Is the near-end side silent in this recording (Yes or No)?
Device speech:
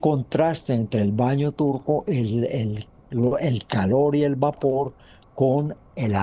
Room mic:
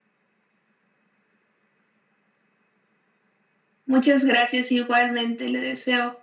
No